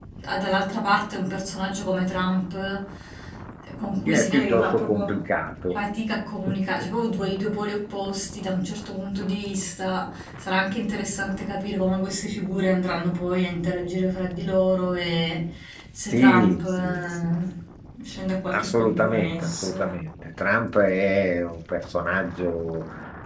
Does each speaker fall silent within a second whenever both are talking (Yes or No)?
No